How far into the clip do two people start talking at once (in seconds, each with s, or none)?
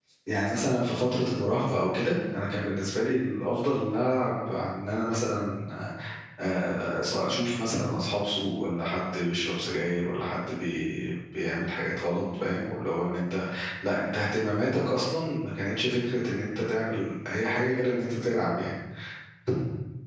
none